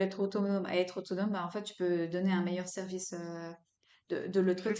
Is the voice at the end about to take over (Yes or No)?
Yes